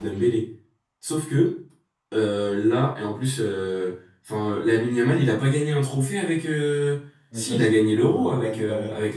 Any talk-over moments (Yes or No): Yes